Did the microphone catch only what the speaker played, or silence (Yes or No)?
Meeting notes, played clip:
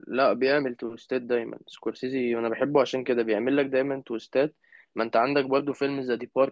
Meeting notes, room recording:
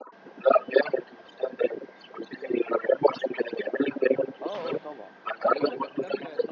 No